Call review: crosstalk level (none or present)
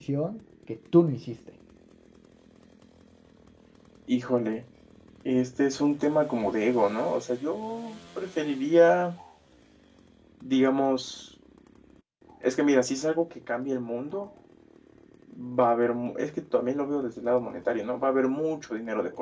none